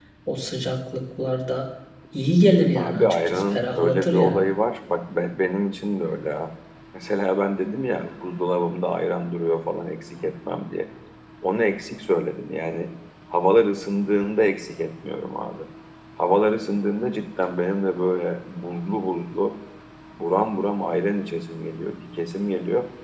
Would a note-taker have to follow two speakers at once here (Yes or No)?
Yes